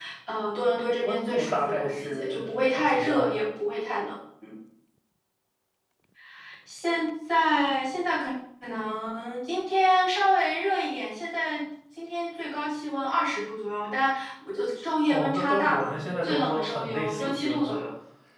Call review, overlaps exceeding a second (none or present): present